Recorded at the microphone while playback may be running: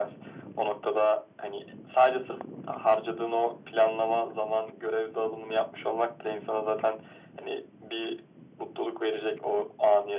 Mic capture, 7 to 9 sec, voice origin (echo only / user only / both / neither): echo only